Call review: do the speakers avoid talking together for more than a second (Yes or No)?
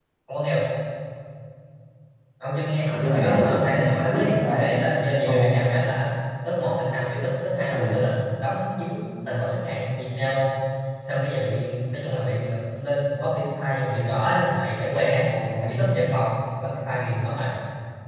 No